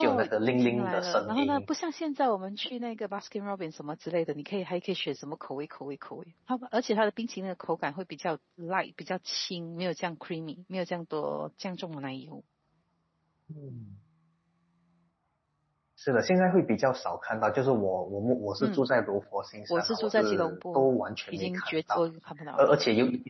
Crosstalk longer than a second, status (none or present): present